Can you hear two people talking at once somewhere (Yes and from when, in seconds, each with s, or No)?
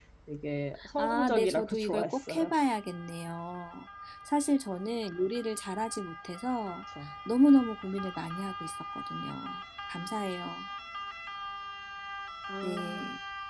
Yes, from 1.0 s